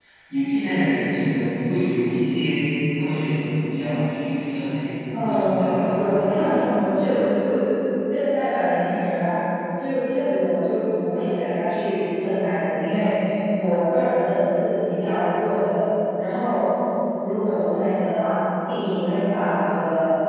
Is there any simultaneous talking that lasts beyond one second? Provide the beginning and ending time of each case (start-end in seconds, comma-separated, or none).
5.2-6.5